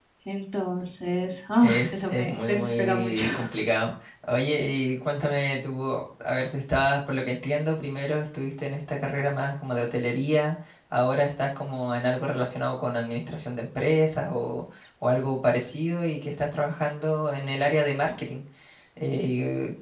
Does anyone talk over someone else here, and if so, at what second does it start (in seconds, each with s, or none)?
1.6 s